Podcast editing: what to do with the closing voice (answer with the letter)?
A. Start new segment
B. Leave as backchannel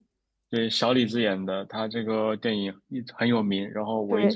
B